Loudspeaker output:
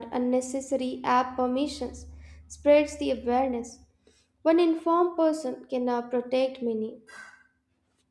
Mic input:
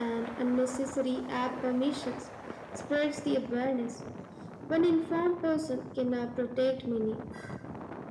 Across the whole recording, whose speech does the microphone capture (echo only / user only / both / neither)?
echo only